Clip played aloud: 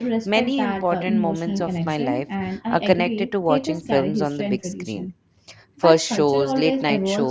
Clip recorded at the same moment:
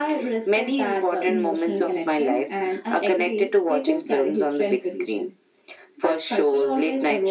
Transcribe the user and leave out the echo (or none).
none